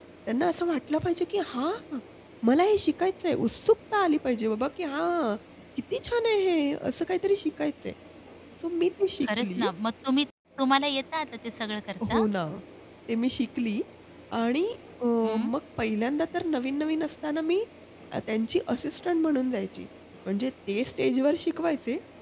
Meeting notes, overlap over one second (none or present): none